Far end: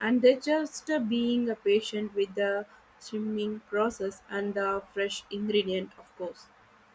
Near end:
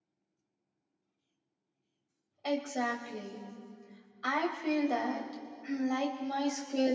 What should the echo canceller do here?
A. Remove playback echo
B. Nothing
B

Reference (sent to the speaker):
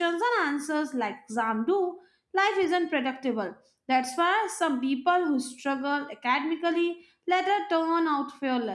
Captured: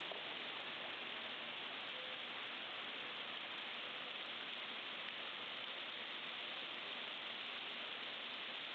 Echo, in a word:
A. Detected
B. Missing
B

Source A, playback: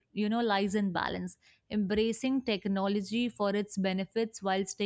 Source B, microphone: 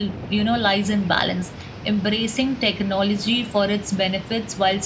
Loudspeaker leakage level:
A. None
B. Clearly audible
B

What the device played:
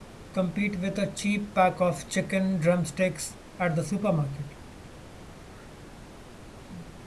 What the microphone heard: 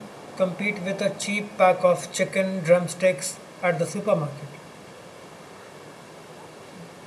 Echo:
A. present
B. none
A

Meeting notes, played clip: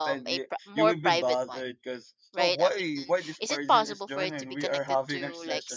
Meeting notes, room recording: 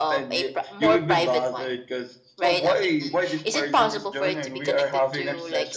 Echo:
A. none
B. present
B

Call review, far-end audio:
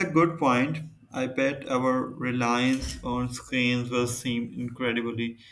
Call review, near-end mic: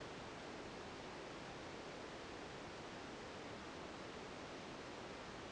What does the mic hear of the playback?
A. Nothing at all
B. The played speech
A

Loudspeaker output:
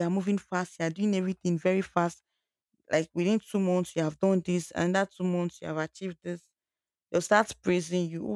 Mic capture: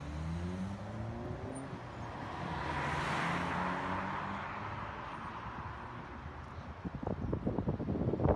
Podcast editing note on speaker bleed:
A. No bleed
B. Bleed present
A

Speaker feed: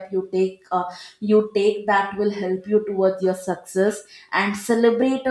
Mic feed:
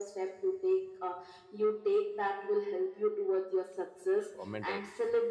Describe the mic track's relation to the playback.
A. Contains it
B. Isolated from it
A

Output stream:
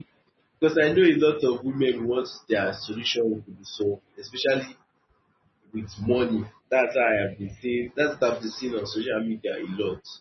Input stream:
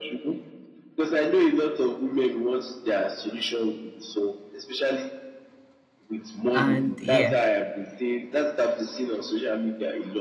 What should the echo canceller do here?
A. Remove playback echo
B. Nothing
A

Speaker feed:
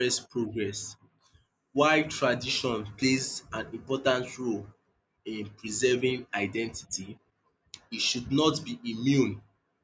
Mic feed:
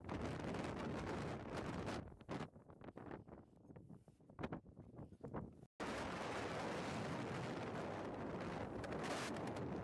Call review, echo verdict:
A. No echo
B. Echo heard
A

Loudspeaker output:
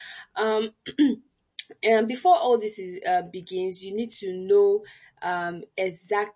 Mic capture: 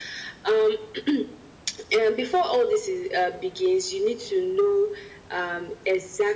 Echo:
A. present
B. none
A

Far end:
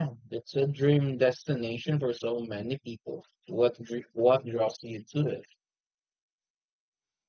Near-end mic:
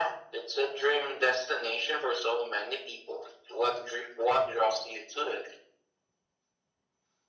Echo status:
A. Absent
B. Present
B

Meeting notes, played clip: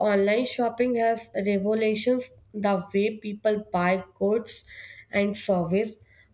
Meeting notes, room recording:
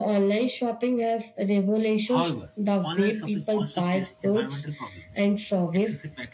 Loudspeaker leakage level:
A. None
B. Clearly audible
B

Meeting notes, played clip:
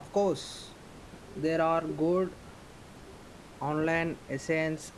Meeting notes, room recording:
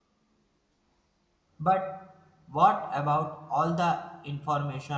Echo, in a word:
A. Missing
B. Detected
A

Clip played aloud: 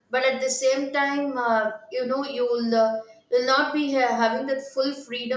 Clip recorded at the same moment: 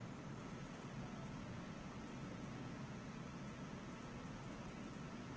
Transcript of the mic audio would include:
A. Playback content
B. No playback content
B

